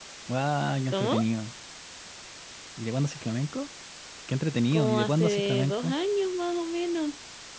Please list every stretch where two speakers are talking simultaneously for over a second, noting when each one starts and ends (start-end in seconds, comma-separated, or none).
4.7-5.9